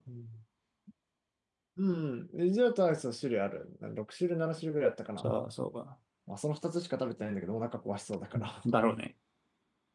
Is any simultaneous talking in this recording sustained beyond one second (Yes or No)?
No